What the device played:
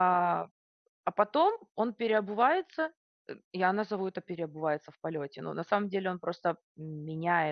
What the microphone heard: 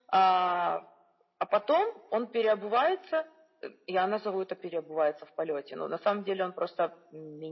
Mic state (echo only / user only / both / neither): echo only